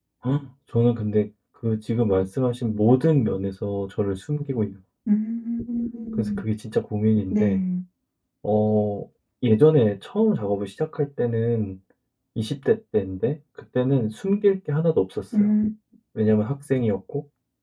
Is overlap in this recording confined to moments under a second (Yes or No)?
Yes